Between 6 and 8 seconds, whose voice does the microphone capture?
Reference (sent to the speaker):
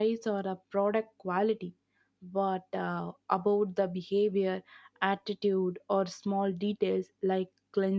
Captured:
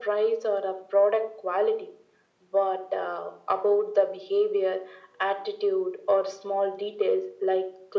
echo only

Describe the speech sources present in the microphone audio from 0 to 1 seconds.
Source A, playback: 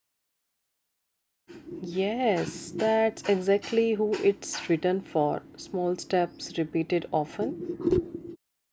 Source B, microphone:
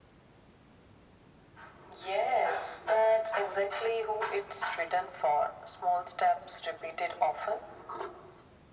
neither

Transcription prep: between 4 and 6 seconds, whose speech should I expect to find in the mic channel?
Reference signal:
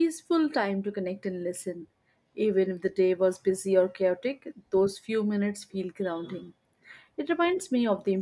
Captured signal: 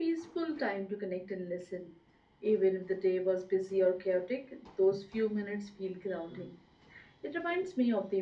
echo only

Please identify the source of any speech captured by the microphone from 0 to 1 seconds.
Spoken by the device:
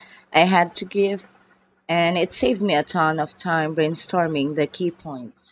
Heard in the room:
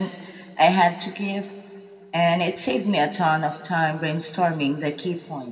echo only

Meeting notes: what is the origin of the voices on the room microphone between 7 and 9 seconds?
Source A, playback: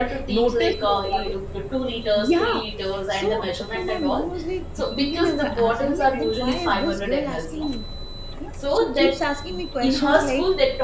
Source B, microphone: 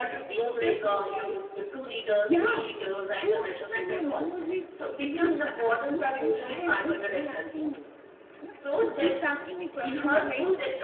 echo only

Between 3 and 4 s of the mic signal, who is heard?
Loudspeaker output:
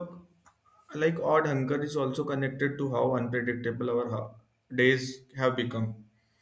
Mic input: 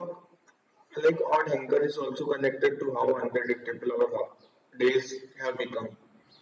echo only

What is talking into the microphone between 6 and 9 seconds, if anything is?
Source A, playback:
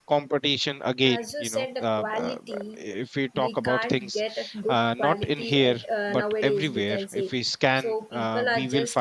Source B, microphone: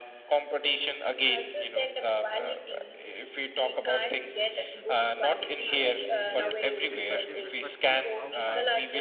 both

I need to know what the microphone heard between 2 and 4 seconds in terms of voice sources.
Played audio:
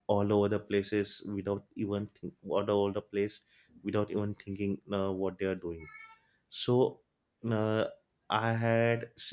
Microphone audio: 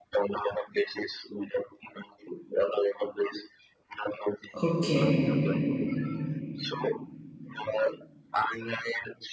echo only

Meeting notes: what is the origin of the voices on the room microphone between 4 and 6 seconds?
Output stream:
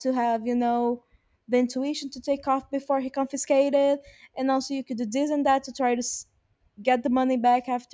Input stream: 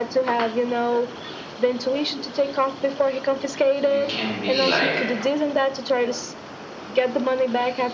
both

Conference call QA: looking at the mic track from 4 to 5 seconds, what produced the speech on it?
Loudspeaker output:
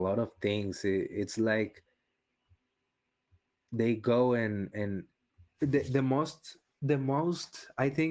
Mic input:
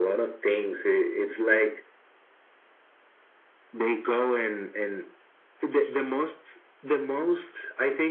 echo only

